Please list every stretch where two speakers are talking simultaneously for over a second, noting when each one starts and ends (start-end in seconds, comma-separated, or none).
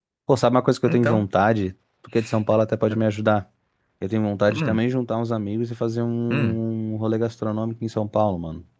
none